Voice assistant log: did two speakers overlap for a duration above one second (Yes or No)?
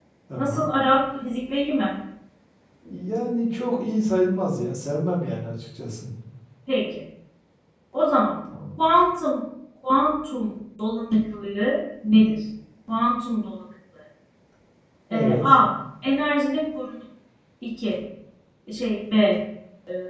No